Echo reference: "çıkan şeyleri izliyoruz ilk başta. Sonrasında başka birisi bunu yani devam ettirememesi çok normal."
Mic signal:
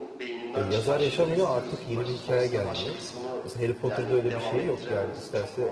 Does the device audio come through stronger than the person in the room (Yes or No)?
No